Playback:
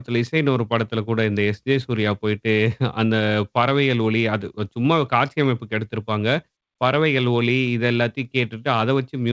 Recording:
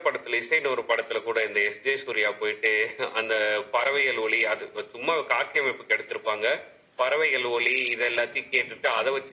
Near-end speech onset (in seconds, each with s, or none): none